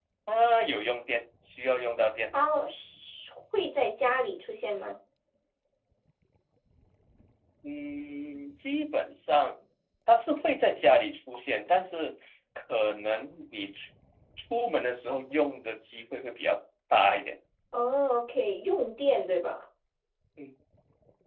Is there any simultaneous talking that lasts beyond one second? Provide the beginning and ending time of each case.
none

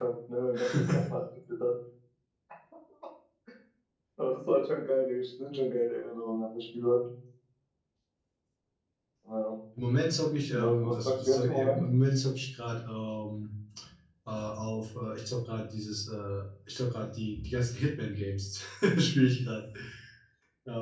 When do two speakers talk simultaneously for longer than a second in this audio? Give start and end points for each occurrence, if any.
10.6-11.8

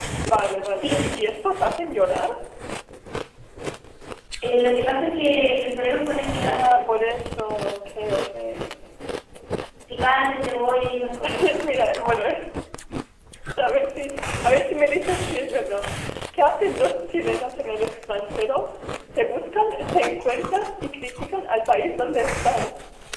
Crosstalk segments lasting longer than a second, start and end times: none

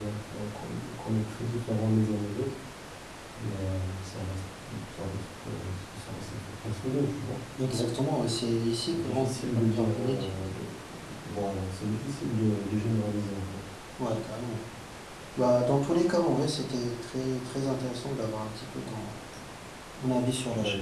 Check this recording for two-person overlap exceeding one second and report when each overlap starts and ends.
8.9-10.4

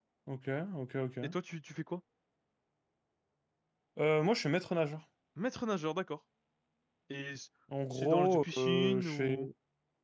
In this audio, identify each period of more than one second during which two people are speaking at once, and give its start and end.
7.9-9.5

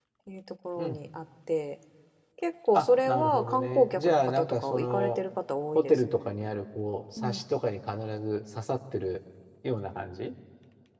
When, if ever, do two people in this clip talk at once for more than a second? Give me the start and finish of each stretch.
2.7-5.2

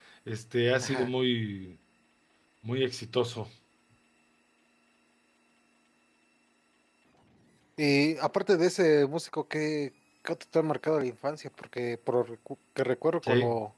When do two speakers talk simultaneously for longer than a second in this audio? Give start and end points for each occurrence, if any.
none

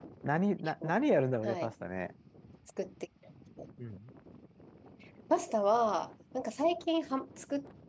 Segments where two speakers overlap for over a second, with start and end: none

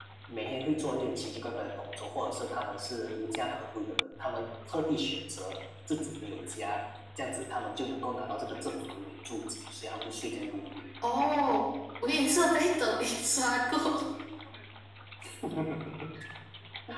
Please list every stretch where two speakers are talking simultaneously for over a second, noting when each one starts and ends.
none

